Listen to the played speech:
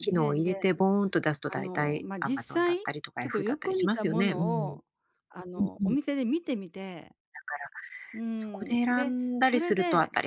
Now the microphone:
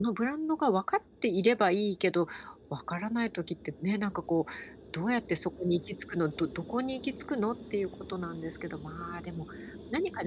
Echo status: none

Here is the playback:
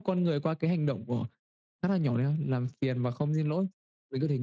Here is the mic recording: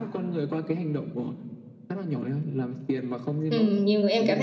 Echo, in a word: present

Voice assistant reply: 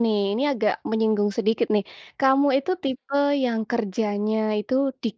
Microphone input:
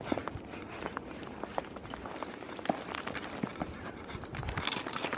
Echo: none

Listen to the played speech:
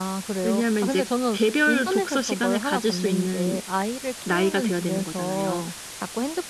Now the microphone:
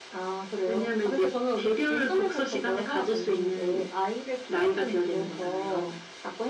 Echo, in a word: present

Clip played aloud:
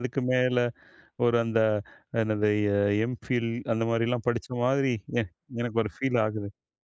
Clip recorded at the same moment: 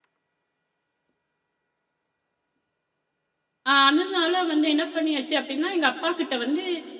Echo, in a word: none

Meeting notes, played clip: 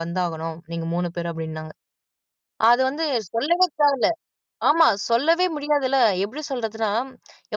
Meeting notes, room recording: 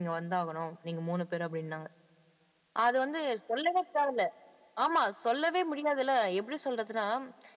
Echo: present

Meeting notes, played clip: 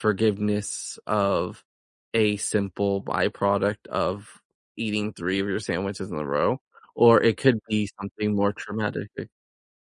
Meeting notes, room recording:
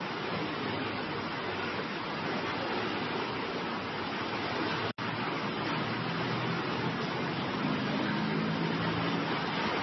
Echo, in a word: none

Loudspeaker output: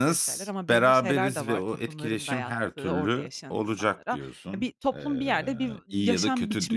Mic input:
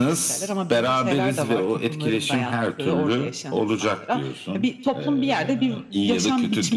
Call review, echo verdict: present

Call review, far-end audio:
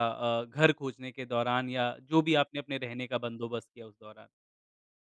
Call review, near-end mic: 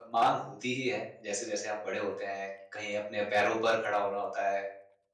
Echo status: none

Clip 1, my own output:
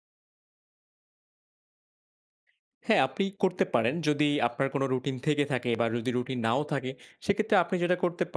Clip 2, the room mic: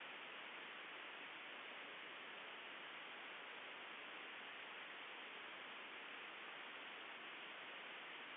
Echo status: none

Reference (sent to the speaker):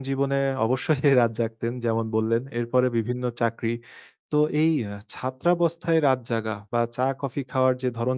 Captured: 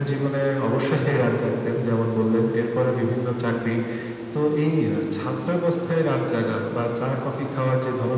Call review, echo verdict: present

